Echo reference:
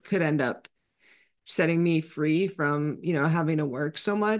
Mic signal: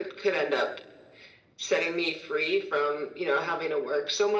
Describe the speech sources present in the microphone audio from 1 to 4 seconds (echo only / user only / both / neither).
echo only